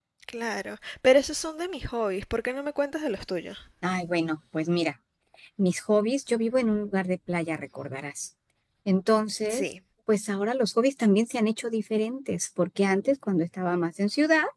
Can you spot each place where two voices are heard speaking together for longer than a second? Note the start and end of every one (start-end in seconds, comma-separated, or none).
none